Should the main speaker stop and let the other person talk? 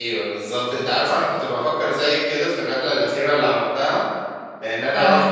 No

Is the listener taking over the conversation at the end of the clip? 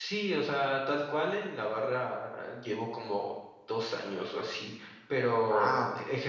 No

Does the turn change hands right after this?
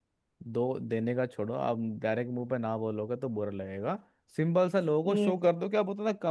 No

